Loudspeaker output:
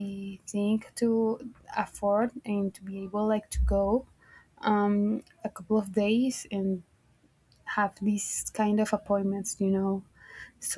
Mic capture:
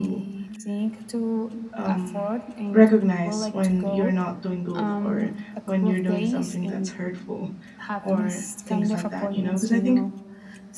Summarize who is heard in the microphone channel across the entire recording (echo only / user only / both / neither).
both